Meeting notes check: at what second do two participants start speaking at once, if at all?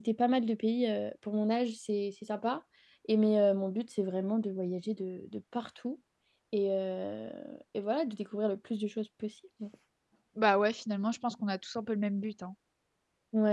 none

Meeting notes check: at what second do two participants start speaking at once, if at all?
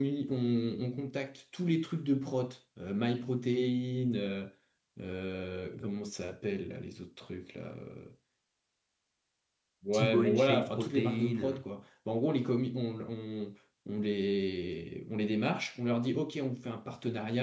9.9 s

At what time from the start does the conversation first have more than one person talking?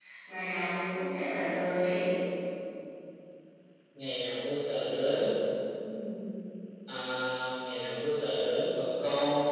none

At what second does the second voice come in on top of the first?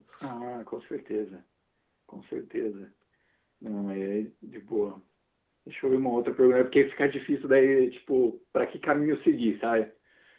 none

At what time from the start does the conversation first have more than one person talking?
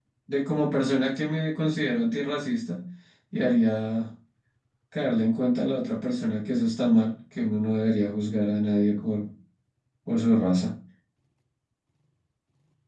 none

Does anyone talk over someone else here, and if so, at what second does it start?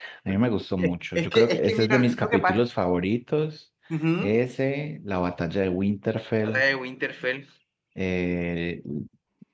0.8 s

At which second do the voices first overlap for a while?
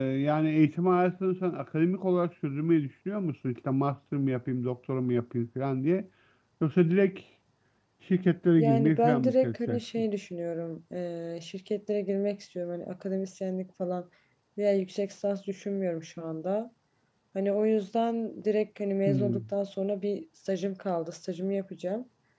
8.6 s

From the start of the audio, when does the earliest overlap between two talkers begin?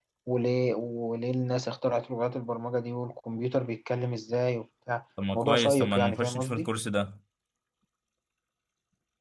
5.2 s

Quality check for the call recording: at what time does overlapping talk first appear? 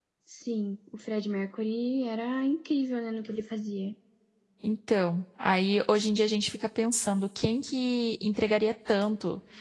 none

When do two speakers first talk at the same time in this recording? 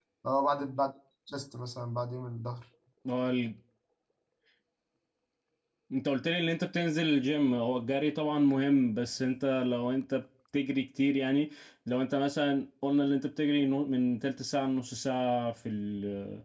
none

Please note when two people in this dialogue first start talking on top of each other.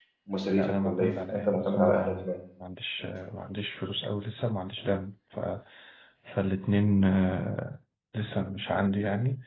0.5 s

